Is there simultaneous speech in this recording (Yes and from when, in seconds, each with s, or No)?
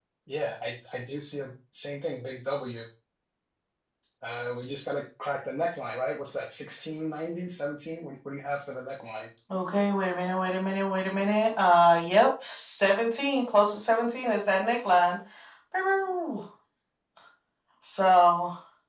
No